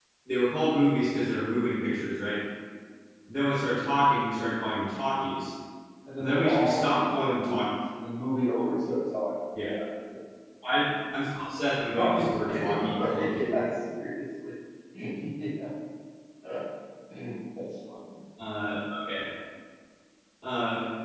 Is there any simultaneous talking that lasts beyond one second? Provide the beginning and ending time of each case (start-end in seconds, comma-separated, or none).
6.2-7.7, 12.0-13.6